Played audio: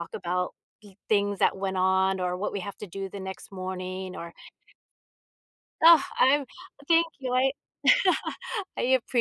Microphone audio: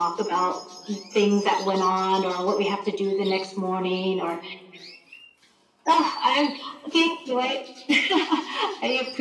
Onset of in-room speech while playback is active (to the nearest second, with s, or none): none